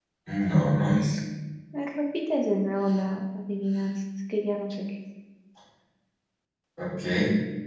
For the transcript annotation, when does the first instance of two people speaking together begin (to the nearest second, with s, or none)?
none